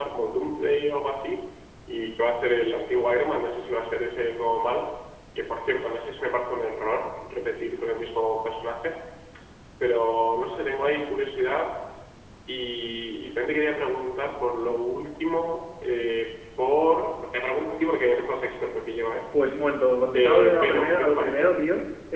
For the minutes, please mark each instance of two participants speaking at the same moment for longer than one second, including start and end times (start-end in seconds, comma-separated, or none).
20.1-21.5